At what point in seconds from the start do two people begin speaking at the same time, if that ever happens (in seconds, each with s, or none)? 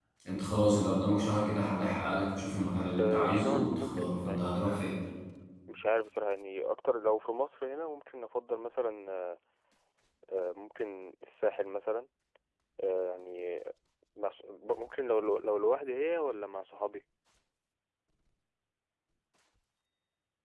3.0 s